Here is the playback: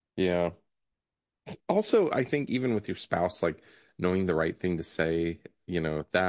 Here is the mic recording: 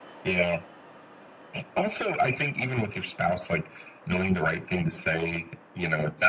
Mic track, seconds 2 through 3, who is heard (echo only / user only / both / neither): echo only